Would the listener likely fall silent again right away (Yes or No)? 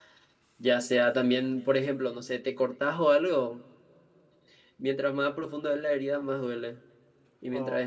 Yes